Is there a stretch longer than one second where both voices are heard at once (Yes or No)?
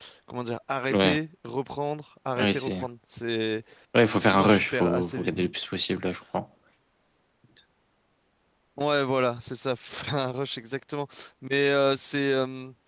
Yes